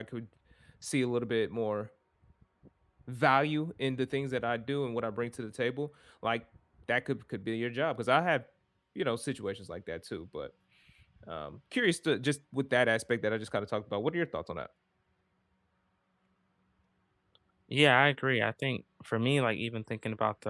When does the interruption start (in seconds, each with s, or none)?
none